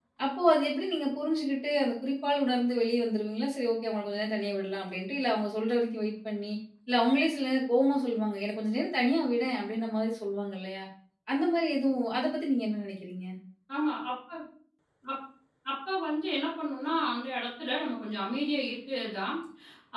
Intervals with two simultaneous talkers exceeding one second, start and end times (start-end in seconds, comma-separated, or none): none